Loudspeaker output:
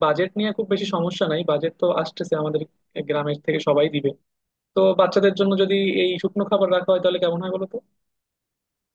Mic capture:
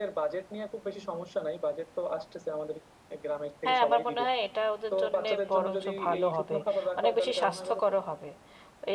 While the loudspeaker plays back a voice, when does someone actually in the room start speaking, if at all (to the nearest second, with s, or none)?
4 s